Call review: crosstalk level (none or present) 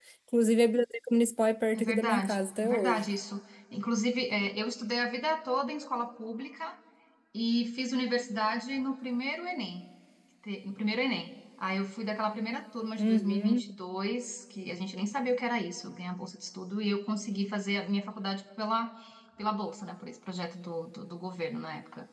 present